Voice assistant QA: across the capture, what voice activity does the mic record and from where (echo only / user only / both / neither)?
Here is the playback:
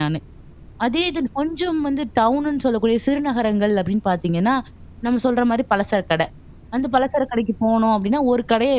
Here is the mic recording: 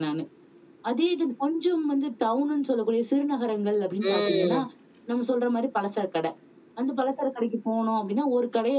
both